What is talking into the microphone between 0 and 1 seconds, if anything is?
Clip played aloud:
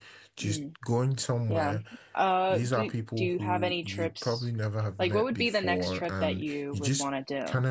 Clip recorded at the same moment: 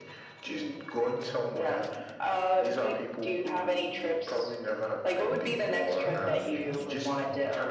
echo only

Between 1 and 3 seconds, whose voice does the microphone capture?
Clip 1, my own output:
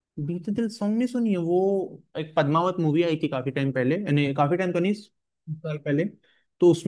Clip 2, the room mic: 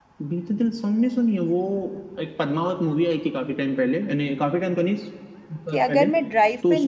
echo only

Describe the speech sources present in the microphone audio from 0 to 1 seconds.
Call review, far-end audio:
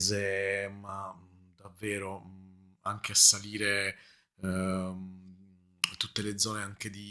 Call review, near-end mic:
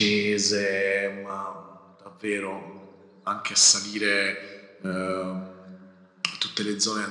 echo only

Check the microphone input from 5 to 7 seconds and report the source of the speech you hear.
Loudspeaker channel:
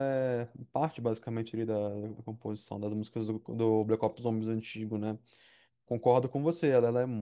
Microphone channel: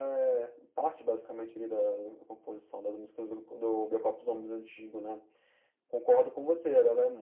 echo only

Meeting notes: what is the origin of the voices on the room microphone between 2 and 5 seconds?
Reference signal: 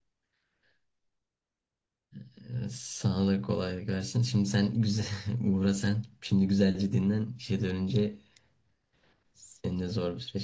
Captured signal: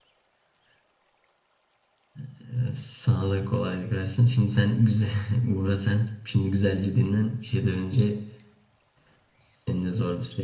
echo only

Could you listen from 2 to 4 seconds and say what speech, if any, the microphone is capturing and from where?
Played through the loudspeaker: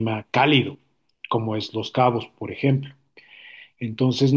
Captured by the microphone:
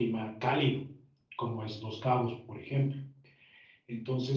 echo only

